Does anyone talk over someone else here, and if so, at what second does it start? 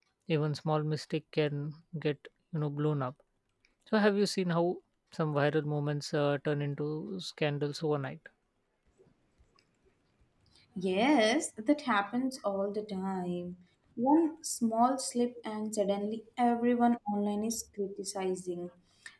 none

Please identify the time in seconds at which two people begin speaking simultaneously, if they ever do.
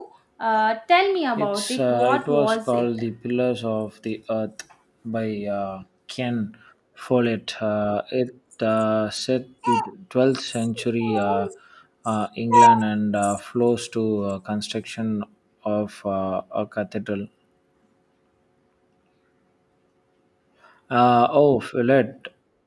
1 s

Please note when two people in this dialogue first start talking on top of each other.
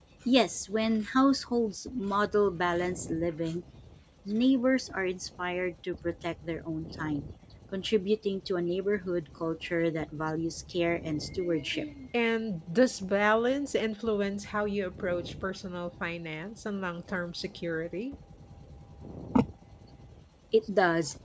none

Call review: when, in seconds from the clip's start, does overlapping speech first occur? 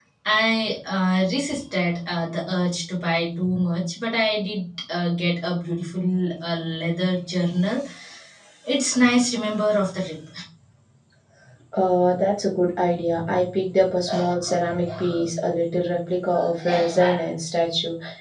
none

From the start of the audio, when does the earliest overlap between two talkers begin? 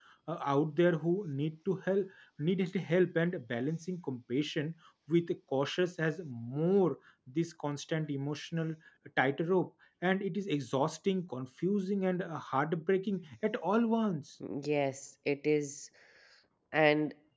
none

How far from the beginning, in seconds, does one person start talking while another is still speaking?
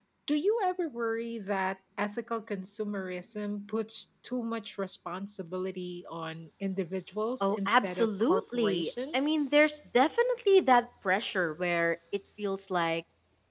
7 s

